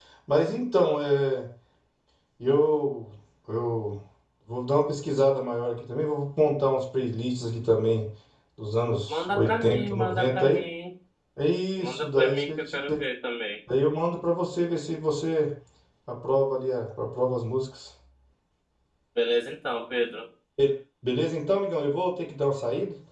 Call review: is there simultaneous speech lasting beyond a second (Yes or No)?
Yes